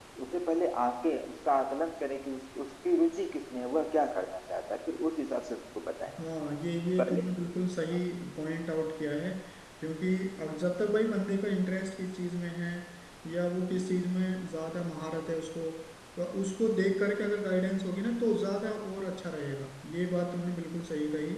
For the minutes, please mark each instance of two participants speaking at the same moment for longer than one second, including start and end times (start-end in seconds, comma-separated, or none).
none